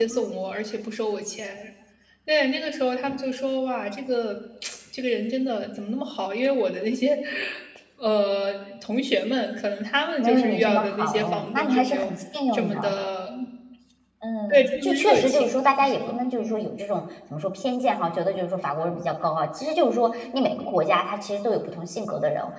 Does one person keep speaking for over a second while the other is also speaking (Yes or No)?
Yes